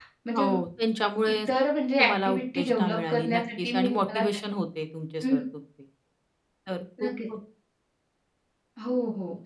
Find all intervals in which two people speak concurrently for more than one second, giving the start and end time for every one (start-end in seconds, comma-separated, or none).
2.0-4.2